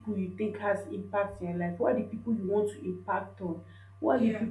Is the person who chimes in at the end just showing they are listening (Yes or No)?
Yes